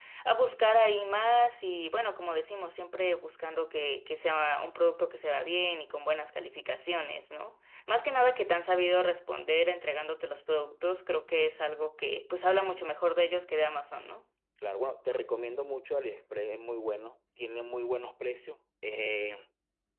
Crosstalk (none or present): none